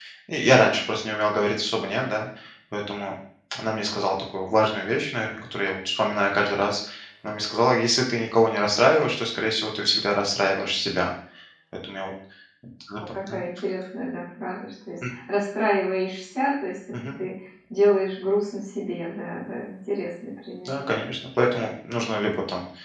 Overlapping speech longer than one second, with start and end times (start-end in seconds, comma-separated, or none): none